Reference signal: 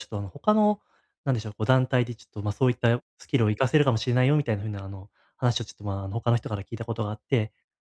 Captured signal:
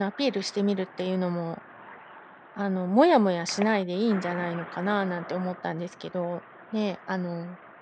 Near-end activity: present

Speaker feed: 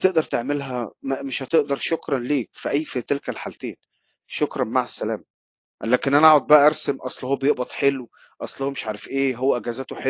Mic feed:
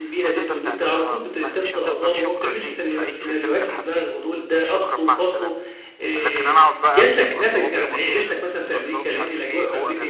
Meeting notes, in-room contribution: present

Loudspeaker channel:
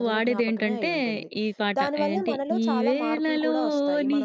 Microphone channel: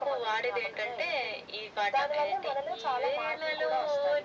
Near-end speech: none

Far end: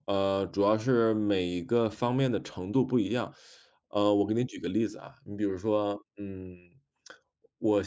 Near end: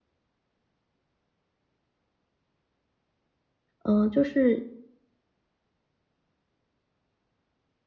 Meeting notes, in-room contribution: present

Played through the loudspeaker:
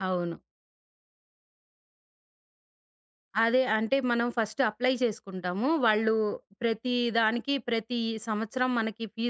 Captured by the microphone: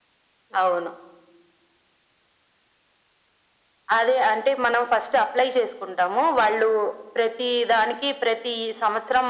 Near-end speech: none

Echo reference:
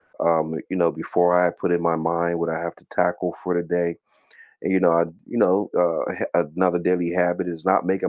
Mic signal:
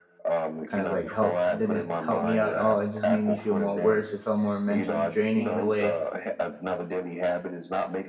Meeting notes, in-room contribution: present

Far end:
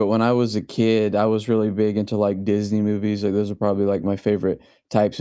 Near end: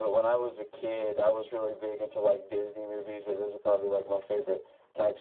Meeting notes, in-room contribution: none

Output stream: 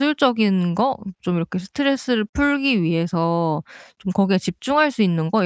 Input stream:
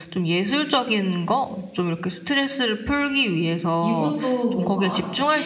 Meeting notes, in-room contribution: present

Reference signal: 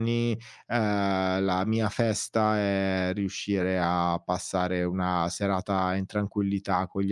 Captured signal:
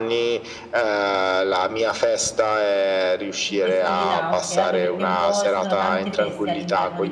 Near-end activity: present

